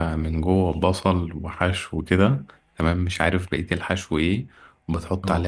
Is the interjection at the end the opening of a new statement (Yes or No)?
No